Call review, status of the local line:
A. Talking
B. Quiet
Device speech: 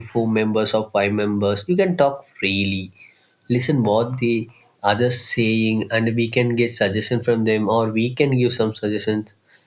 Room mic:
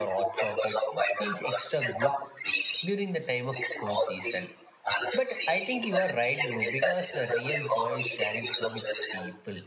A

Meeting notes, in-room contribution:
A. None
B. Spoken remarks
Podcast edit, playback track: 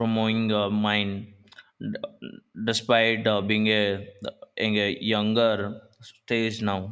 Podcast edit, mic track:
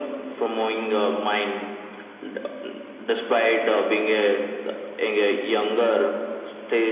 A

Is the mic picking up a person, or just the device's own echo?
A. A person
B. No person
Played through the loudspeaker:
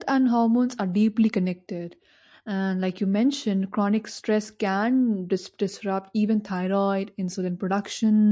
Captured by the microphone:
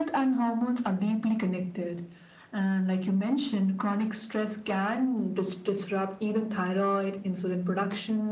B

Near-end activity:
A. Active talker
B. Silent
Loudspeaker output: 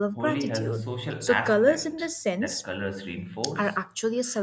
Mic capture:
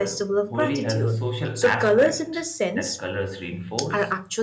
B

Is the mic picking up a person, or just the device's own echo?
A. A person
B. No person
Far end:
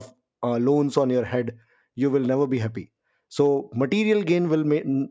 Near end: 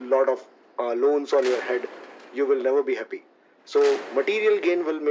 B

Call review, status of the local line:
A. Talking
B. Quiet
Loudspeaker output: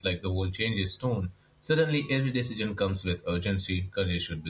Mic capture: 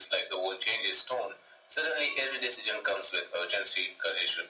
B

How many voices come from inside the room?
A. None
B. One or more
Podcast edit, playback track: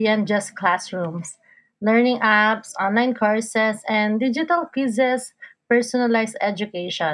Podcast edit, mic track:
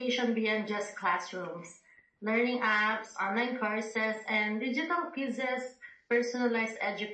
A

